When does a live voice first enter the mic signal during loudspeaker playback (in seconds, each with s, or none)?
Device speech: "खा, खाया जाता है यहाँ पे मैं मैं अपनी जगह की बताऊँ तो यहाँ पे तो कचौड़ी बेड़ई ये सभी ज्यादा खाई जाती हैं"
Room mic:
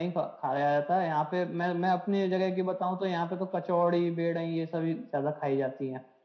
none